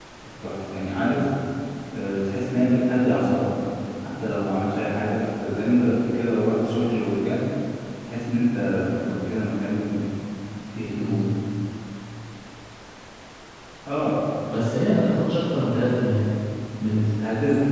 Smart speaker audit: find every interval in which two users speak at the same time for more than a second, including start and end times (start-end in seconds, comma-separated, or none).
none